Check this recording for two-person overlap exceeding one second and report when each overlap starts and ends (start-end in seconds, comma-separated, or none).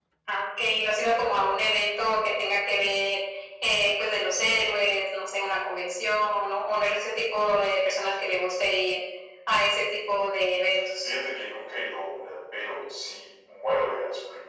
none